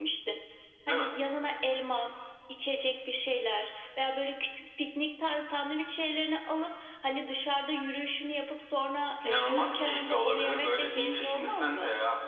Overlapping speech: Yes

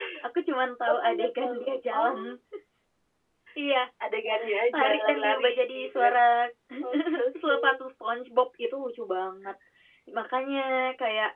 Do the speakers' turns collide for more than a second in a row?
Yes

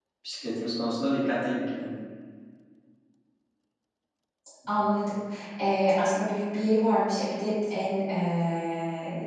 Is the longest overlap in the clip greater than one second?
No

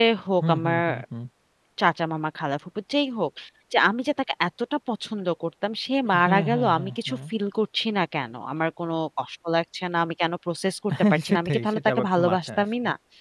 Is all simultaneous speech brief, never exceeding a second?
No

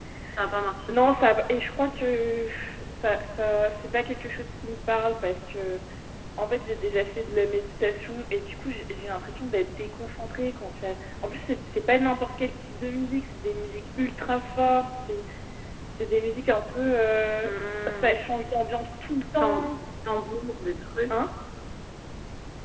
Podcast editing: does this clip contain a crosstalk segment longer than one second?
No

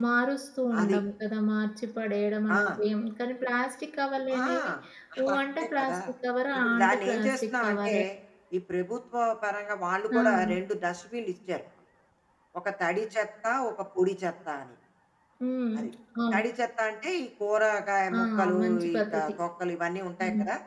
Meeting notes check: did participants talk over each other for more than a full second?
Yes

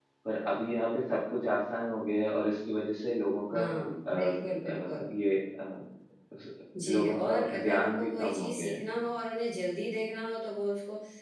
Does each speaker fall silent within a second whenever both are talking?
No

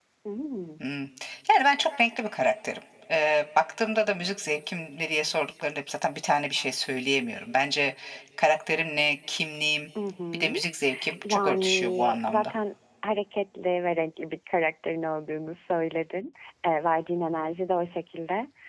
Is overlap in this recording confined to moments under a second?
No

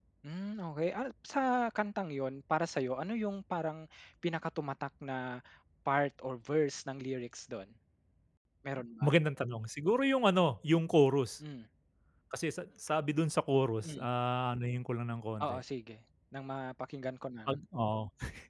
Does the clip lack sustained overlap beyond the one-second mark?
Yes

